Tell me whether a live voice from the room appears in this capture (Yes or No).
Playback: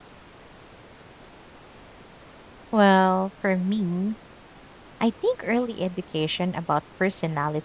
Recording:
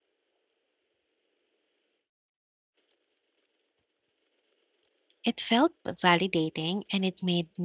Yes